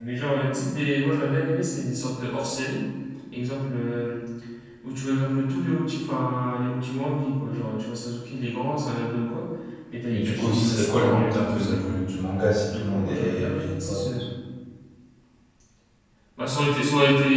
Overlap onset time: 10.1 s

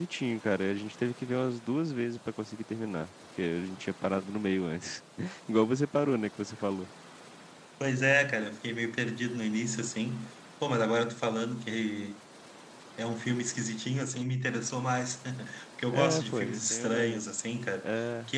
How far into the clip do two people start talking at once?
15.9 s

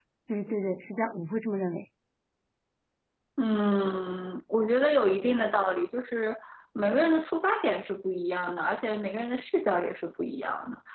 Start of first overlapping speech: none

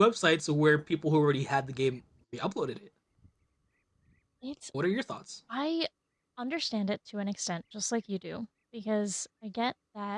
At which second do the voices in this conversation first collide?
none

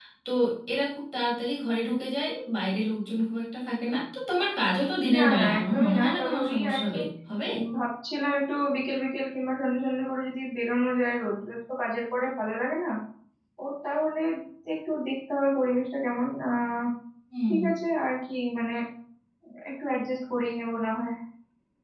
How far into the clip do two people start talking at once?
5.1 s

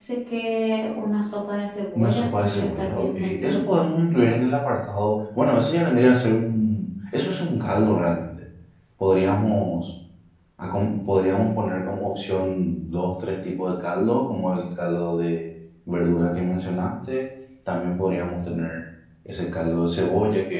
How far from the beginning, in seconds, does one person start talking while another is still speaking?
2.0 s

